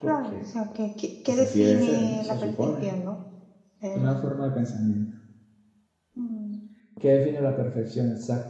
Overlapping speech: Yes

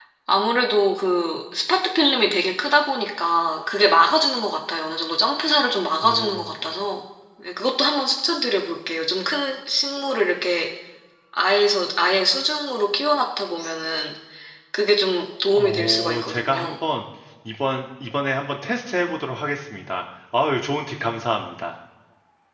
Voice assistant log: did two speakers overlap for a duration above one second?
Yes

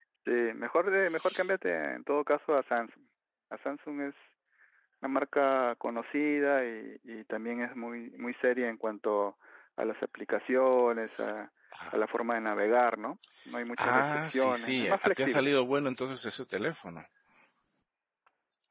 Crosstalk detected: Yes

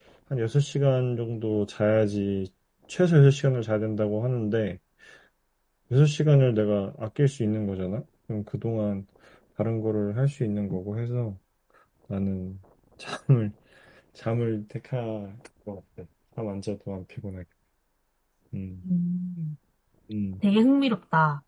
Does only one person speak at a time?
Yes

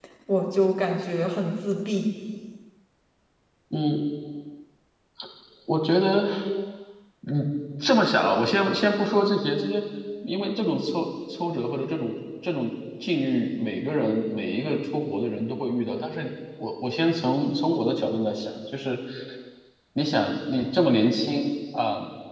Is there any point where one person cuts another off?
No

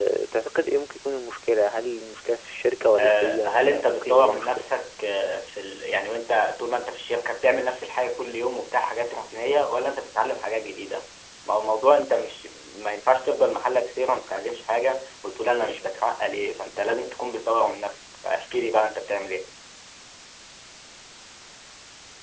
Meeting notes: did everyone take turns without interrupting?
No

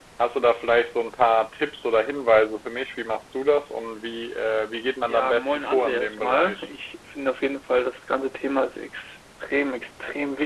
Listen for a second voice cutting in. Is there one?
Yes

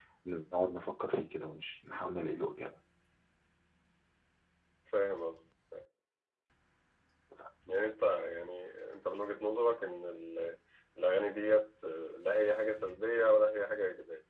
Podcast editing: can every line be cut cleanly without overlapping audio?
Yes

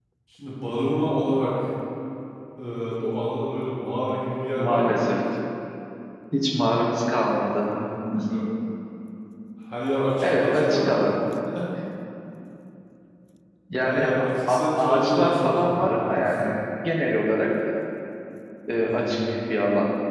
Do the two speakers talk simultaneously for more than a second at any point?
Yes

